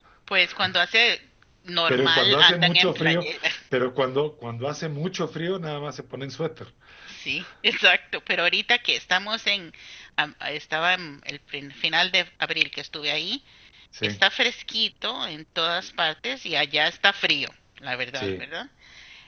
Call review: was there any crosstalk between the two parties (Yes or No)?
Yes